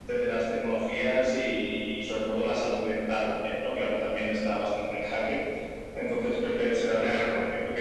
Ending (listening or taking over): listening